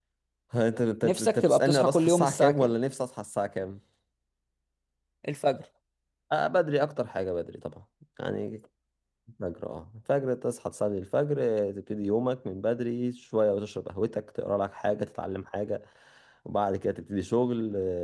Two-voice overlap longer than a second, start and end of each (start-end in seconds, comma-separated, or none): 1.0-2.7